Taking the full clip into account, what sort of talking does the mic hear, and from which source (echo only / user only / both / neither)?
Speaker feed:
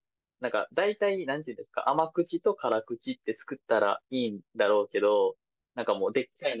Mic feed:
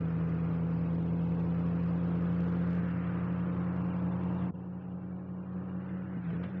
neither